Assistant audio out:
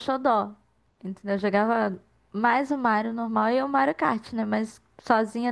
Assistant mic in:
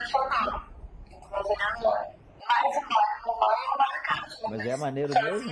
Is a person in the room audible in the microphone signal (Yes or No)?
Yes